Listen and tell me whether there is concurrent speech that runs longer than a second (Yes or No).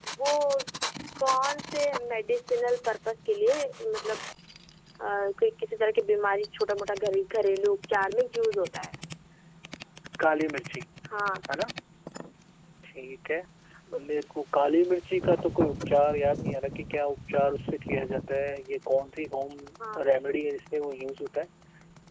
No